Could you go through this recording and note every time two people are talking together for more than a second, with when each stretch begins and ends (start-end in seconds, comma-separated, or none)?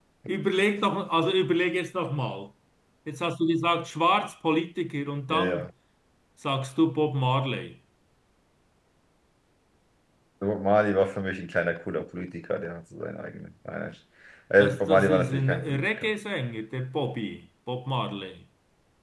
14.7-16.1